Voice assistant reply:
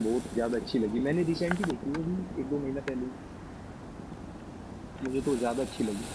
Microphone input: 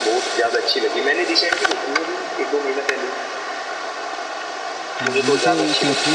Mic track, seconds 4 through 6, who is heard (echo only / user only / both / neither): both